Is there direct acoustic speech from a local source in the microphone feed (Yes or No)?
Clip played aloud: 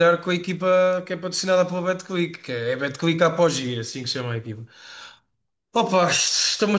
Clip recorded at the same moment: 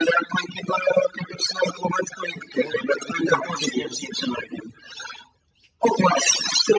Yes